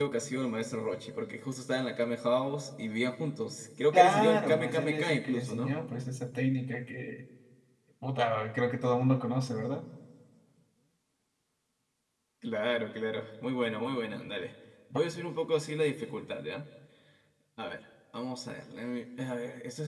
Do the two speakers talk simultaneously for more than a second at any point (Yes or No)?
Yes